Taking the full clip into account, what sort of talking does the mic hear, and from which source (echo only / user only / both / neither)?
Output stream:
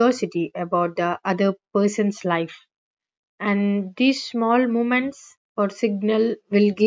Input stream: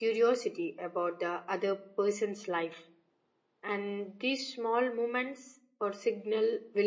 echo only